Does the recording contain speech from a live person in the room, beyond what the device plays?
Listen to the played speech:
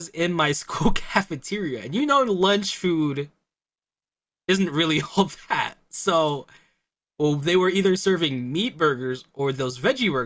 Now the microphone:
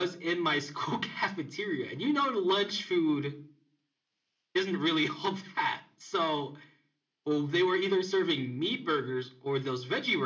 No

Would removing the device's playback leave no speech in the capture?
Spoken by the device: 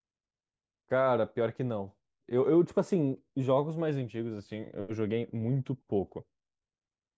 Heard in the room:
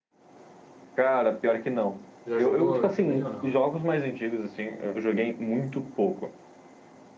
No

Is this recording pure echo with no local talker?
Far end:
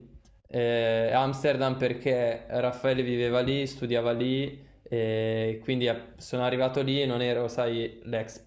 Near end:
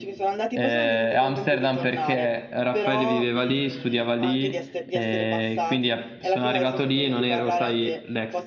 No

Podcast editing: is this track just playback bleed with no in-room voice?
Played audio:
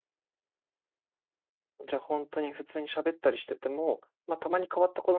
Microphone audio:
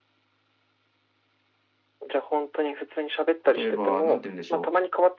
No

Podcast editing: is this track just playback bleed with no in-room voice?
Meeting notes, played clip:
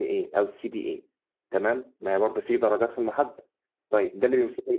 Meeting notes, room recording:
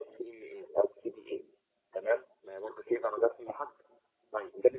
Yes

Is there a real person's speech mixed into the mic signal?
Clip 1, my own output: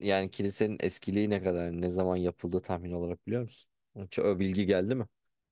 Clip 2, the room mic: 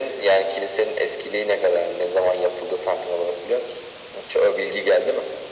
No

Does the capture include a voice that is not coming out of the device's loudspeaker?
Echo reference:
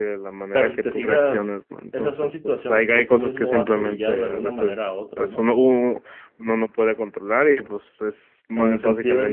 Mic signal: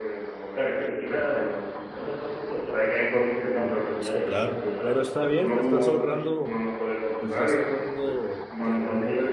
Yes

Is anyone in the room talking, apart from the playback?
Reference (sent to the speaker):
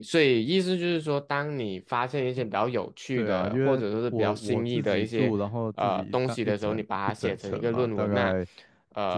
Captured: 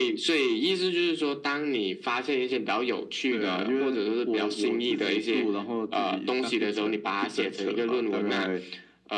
No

